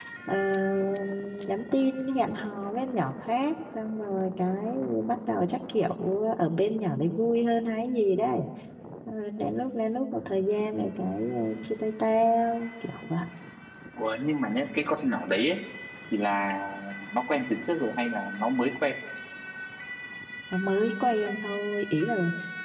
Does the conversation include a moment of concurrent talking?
No

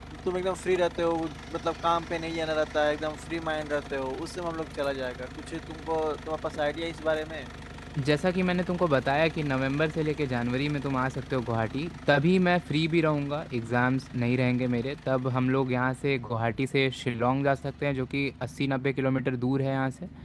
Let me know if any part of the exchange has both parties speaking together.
No

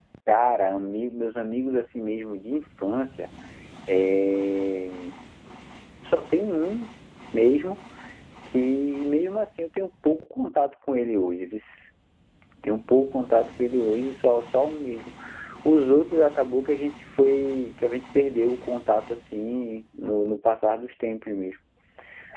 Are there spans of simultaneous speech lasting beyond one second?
No

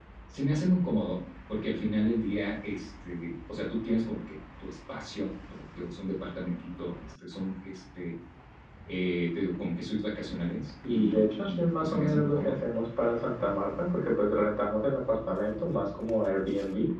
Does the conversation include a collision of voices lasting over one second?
Yes, from 10.8 s

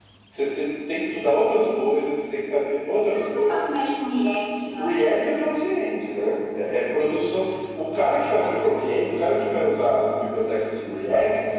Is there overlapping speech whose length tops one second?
No

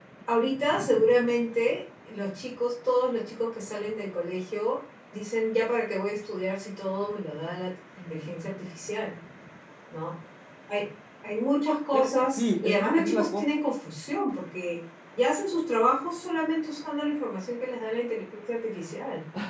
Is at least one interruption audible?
Yes, from 11.9 s

